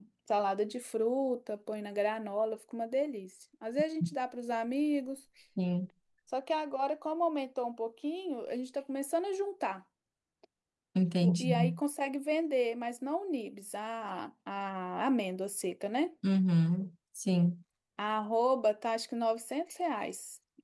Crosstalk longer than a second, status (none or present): none